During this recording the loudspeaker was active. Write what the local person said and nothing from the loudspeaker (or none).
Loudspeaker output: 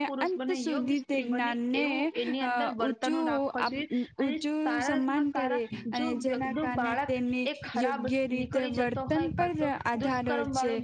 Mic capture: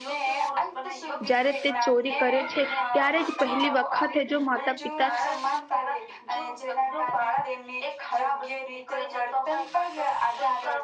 જ્યારે તે ચોરી કરે છે ત્યારે જ પહેલી વખત જો માતા પિતા